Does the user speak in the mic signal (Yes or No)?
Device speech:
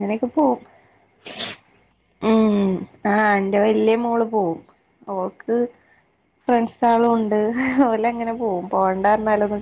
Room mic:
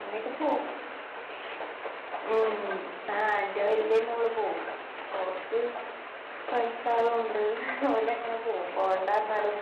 No